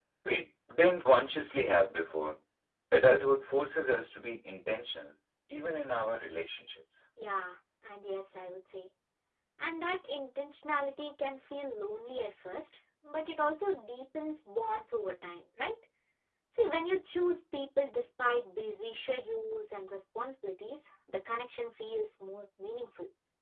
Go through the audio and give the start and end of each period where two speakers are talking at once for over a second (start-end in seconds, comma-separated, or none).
none